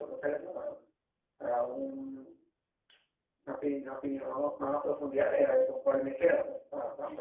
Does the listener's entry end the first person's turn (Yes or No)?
Yes